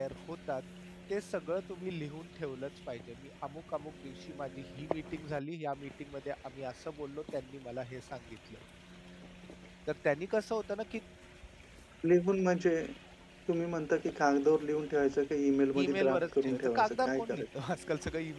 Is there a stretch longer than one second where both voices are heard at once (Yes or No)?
Yes